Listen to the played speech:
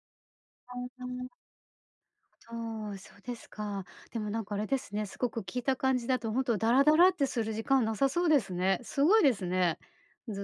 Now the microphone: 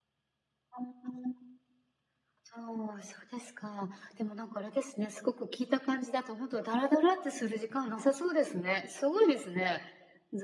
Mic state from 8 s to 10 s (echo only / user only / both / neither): echo only